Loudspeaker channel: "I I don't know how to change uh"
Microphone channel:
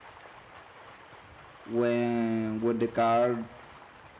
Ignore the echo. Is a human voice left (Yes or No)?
Yes